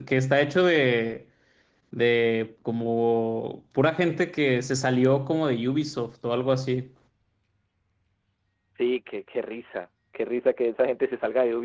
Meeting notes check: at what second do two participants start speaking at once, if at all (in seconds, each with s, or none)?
none